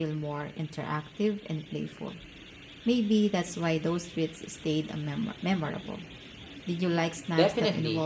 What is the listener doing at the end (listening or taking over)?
taking over